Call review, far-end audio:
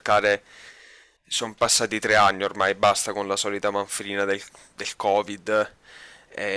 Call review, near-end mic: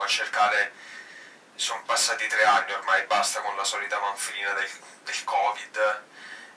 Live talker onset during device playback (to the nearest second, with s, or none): none